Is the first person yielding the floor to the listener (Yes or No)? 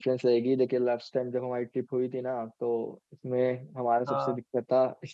No